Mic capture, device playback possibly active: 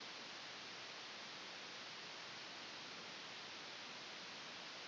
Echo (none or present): none